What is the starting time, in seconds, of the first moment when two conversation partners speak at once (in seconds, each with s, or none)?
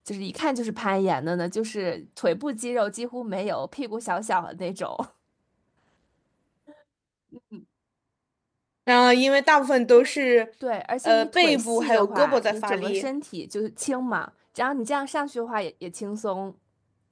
11.0 s